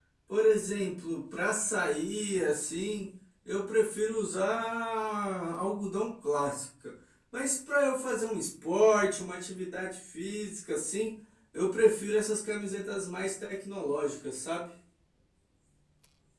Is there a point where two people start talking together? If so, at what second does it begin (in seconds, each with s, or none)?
none